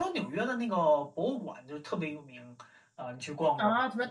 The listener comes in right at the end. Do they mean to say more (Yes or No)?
Yes